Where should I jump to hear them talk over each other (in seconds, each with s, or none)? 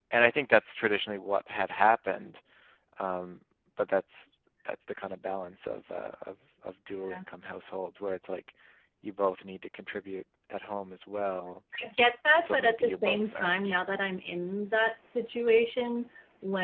12.4 s